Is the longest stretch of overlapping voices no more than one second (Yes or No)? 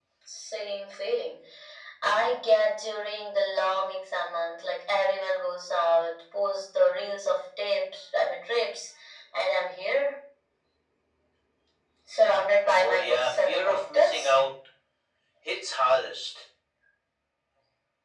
No